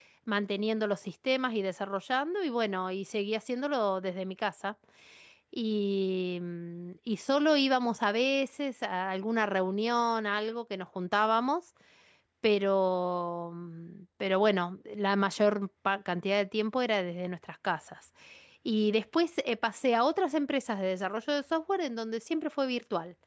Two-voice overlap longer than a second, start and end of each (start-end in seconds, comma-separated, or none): none